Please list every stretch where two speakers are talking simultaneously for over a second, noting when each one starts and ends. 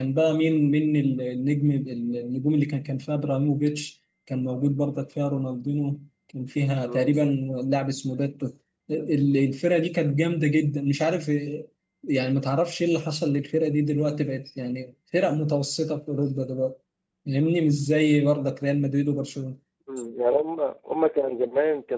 none

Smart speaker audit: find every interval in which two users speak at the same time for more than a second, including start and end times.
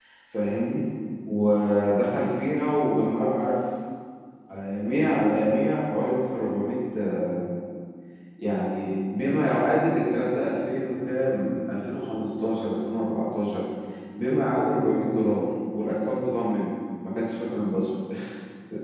none

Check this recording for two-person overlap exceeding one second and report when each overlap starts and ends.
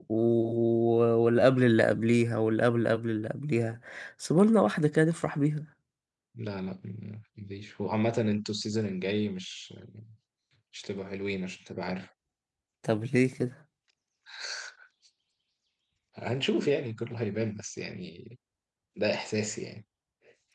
none

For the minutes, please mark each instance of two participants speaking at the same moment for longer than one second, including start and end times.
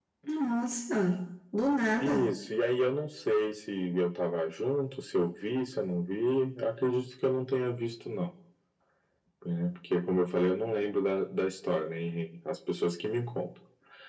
none

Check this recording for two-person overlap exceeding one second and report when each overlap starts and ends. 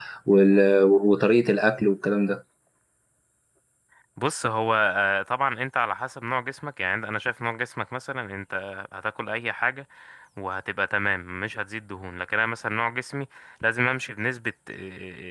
none

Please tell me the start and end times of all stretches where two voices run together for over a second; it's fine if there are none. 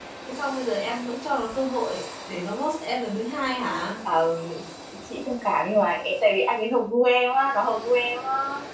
none

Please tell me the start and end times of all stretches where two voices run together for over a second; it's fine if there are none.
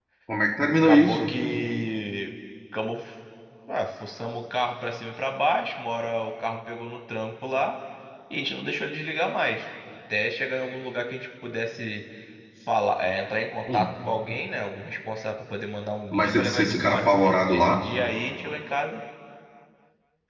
16.1-17.8

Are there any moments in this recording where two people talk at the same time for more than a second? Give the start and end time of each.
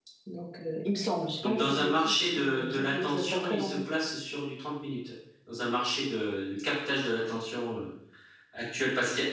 1.4-3.8

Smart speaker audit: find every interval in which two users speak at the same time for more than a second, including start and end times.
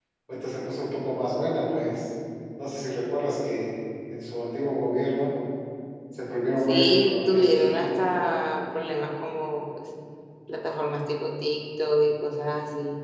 6.7-7.9

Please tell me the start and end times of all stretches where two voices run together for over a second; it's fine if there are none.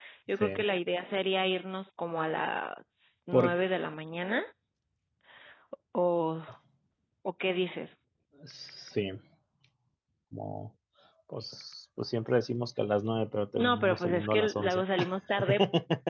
13.6-14.8

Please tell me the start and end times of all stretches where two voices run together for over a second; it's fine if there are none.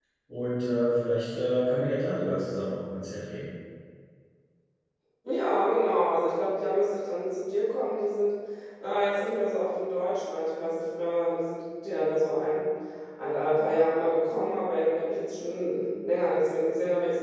none

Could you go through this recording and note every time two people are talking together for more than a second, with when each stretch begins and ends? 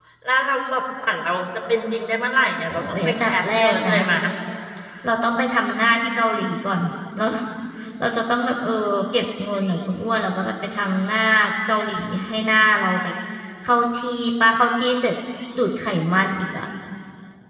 2.7-3.9

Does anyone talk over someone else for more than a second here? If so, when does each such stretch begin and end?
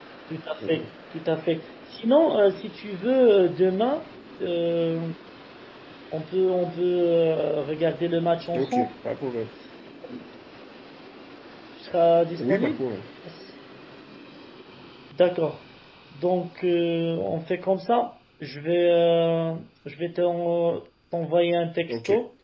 none

